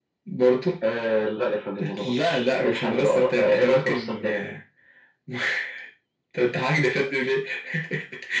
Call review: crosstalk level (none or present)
present